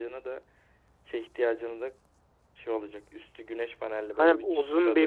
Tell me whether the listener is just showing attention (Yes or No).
No